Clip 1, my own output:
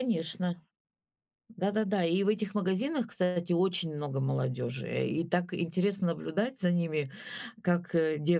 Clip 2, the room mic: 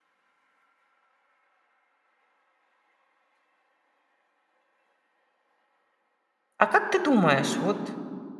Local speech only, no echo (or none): А как ты думаешь, вот